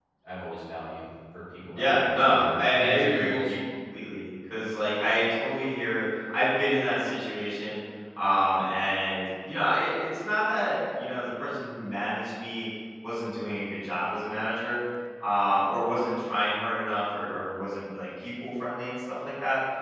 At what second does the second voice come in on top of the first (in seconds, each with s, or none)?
1.8 s